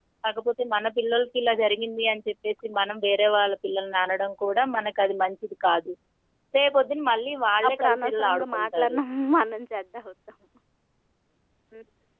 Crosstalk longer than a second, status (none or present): present